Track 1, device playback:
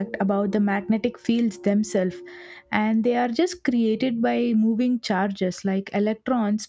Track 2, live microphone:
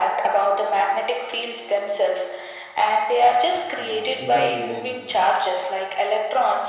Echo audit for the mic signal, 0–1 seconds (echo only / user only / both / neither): echo only